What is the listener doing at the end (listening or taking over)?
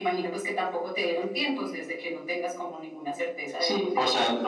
taking over